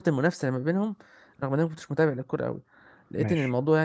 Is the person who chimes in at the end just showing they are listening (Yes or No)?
Yes